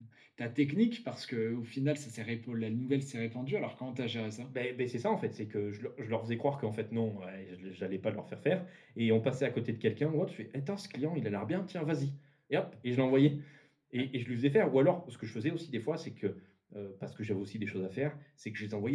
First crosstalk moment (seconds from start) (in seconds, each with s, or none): none